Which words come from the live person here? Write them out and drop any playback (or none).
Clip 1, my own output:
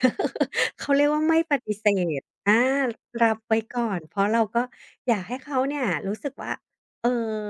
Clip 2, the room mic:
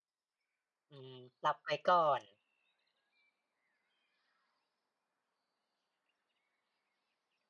อืม รับไว้ก่อน